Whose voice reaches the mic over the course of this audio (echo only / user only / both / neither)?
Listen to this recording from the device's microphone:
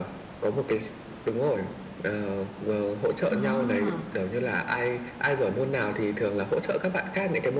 both